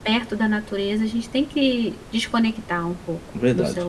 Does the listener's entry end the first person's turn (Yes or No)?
Yes